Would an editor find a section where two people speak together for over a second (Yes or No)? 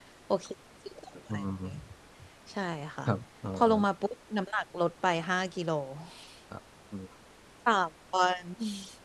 No